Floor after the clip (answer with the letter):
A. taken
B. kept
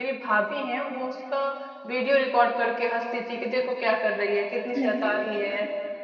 B